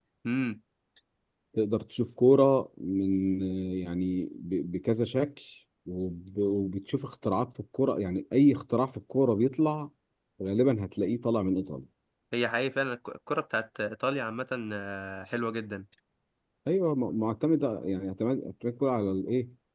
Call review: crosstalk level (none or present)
none